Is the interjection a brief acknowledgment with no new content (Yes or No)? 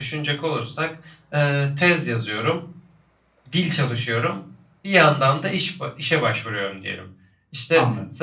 Yes